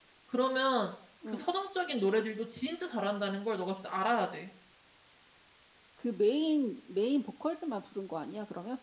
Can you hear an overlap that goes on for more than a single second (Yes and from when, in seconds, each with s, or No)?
No